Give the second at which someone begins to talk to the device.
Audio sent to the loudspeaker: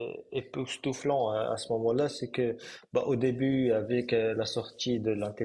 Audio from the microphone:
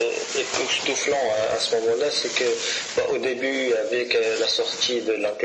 none

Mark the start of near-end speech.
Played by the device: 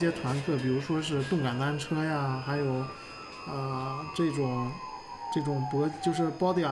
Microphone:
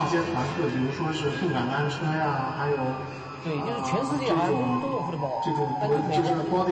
3 s

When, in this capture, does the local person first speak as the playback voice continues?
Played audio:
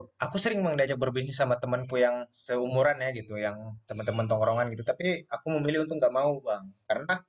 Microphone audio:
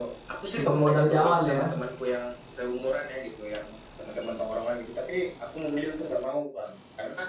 1 s

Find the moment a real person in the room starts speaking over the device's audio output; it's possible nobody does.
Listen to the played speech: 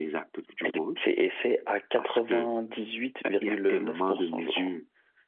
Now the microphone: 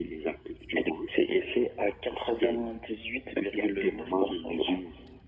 none

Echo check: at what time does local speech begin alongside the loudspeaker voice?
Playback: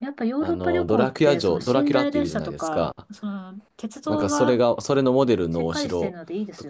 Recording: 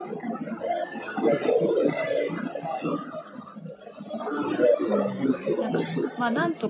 5 s

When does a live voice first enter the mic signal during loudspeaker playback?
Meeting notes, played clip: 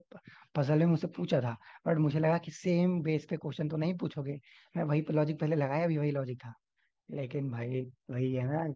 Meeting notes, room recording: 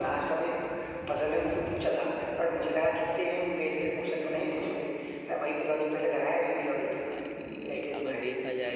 7 s

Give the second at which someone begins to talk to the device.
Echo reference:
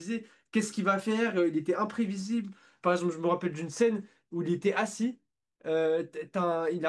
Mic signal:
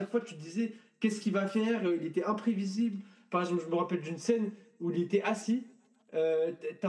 none

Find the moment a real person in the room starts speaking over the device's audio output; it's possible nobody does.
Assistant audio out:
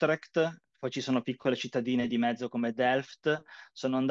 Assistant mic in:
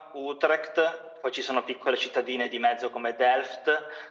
none

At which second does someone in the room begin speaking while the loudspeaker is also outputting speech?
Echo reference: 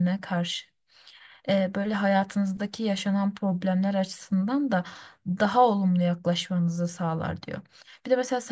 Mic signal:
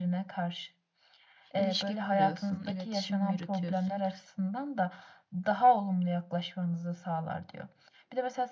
2 s

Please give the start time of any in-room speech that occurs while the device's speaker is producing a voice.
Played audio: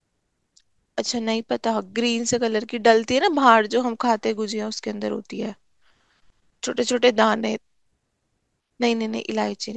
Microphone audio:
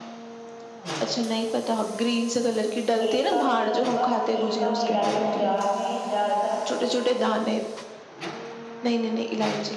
3 s

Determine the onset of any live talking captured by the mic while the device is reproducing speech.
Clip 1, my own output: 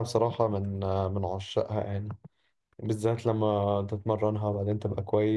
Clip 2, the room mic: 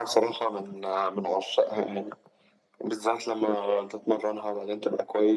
none

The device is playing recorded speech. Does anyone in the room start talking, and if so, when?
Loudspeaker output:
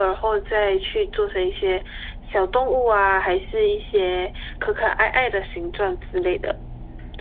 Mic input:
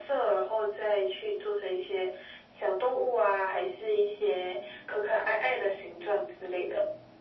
none

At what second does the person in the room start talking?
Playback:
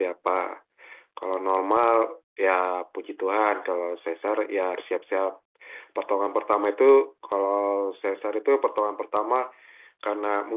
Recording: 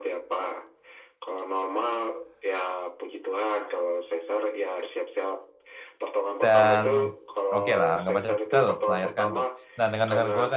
6 s

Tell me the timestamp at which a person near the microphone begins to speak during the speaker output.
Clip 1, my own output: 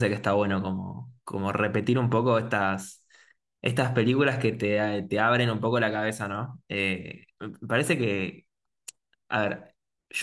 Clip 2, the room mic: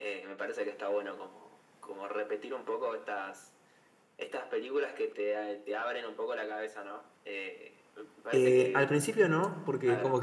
8 s

